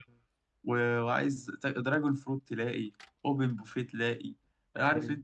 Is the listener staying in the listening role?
Yes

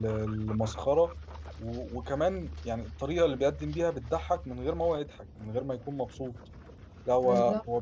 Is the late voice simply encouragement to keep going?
Yes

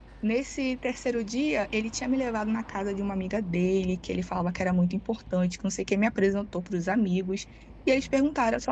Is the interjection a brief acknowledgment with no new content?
Yes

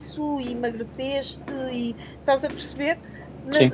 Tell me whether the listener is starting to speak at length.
No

